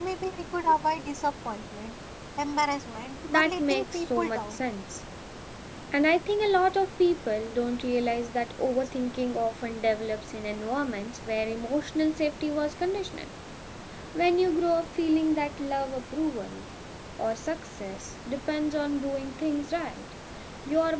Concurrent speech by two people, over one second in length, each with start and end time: 3.3-4.6

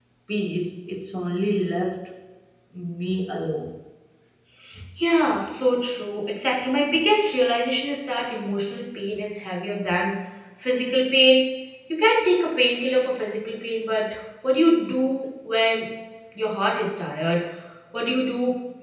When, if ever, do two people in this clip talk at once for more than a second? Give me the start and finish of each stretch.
none

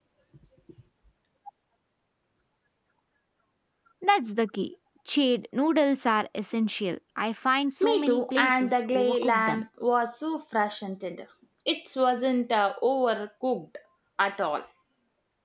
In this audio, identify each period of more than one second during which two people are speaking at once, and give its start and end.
7.8-9.7

